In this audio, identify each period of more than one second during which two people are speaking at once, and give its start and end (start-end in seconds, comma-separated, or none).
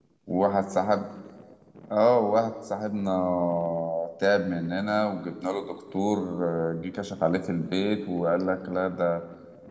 none